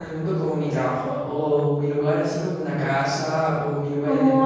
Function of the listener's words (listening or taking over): taking over